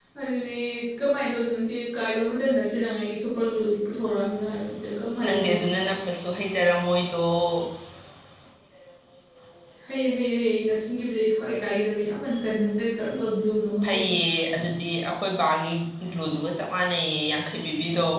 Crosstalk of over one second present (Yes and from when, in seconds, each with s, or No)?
No